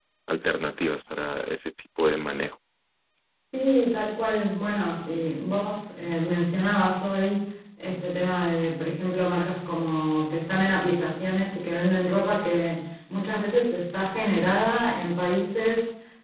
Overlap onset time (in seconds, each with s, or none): none